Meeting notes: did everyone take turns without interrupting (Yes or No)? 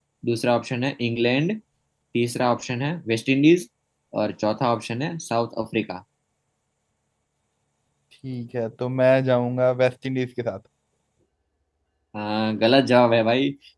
Yes